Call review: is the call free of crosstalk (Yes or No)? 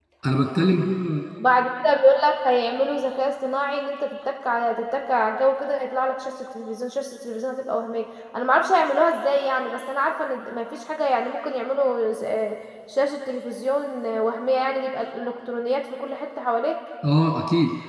Yes